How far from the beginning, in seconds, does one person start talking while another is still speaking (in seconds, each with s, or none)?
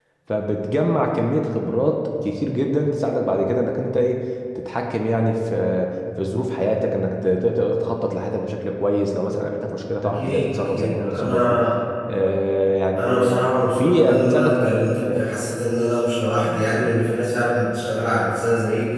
10.0 s